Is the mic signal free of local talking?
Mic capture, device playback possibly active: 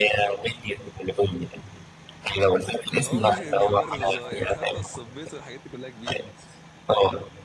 No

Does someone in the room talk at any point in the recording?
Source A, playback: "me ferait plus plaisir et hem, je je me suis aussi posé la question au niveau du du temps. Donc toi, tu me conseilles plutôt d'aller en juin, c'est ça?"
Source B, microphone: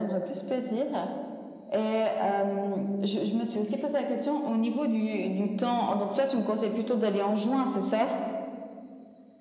No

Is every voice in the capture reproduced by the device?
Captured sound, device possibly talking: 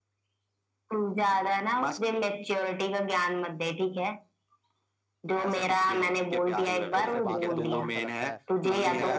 No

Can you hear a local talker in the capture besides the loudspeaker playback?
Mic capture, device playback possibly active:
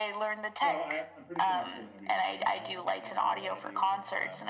Yes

